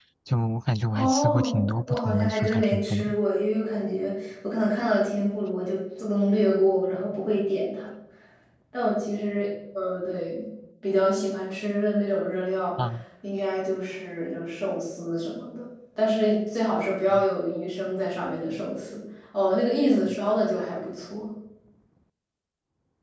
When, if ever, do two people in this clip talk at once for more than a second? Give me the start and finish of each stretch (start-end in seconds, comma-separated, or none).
0.9-3.0